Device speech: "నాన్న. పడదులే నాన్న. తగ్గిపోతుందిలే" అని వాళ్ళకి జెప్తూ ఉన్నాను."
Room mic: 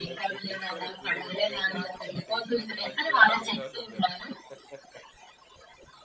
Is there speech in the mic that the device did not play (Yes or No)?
Yes